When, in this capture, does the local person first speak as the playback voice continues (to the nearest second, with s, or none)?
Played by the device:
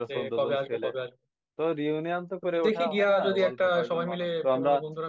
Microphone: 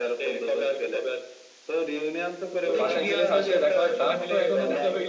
3 s